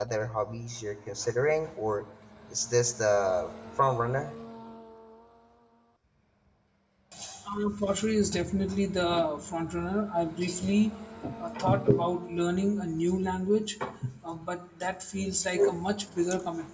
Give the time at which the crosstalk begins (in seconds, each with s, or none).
none